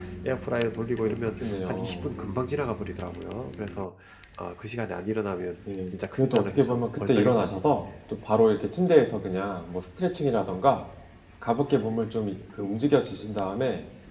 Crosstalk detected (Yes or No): Yes